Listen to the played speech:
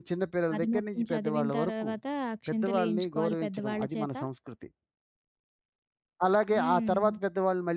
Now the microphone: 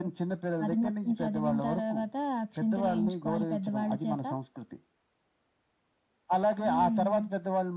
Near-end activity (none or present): none